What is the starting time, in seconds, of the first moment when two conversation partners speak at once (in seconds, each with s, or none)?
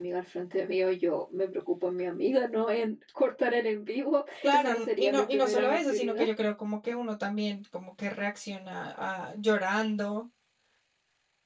4.4 s